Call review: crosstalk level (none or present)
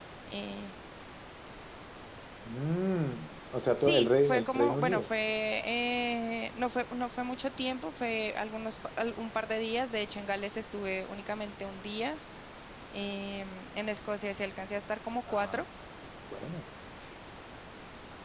present